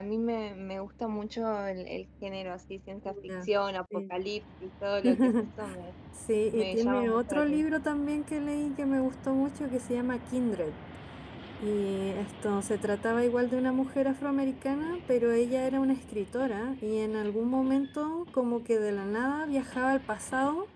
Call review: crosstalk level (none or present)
present